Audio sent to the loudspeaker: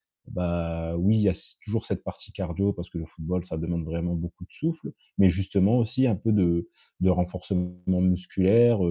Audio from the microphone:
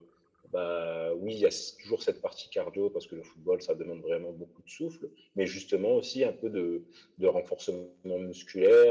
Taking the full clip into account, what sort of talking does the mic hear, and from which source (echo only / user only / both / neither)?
echo only